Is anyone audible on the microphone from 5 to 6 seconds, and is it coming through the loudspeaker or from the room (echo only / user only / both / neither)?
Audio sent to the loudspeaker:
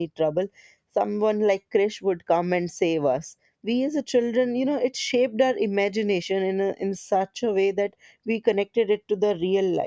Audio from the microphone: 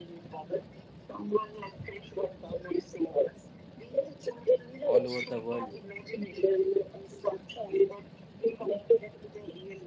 both